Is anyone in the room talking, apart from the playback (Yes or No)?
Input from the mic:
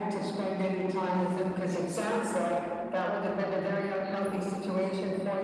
No